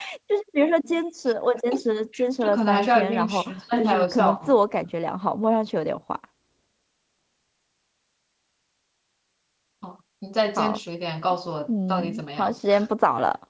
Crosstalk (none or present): present